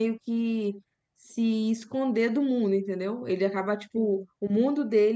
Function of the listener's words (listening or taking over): listening